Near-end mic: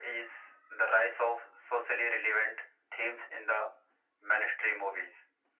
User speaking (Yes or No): No